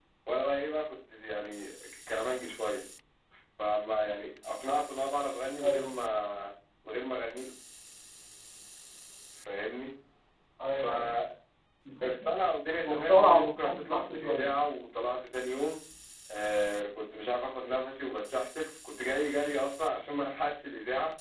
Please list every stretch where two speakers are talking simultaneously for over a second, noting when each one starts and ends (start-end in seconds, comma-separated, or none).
12.8-14.5